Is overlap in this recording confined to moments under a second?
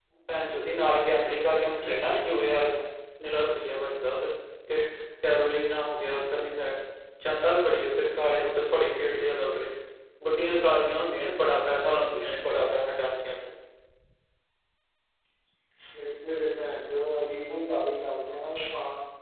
Yes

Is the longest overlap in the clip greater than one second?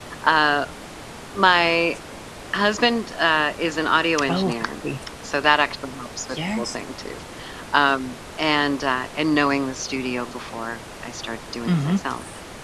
No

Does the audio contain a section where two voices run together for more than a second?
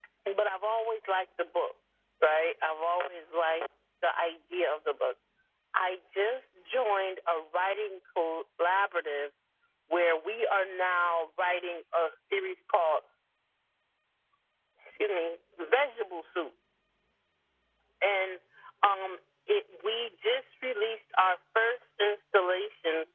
No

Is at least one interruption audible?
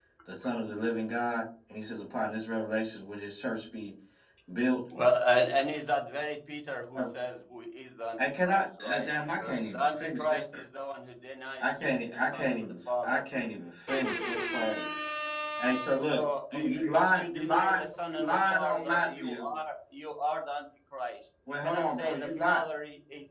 Yes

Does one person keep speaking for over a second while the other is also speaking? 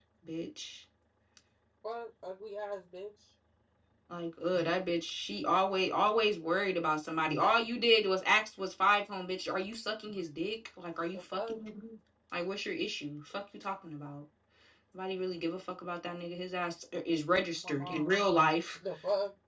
No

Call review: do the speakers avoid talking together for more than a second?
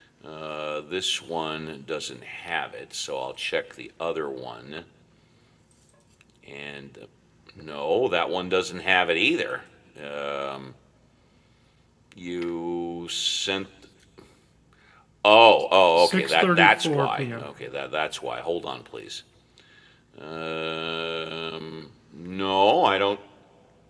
No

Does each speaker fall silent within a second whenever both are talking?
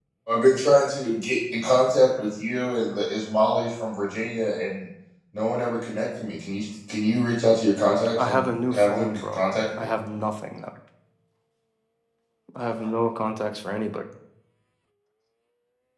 No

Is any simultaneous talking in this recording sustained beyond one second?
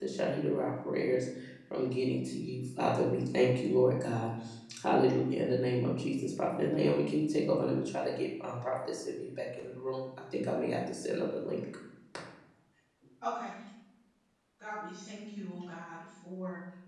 No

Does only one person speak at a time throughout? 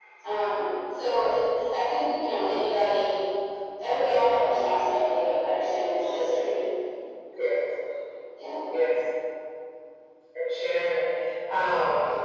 Yes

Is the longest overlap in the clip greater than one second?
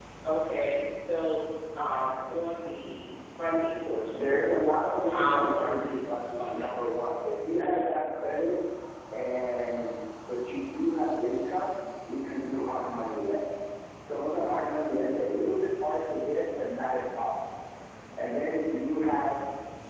Yes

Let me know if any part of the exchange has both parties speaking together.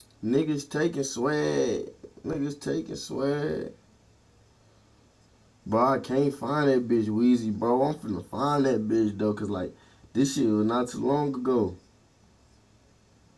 No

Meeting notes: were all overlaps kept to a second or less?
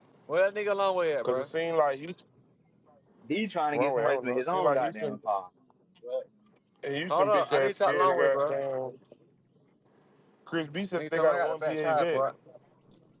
No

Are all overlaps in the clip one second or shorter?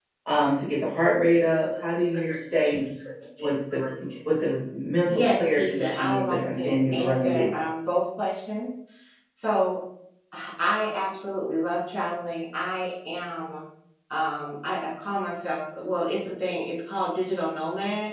No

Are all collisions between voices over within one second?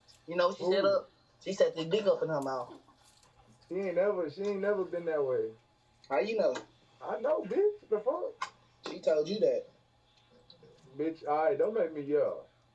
Yes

